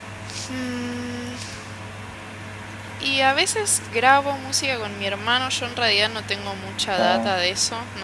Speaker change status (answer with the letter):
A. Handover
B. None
B